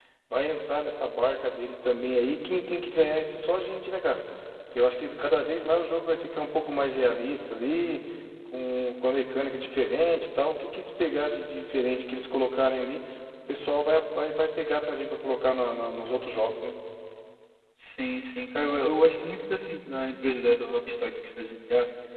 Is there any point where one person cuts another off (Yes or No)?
No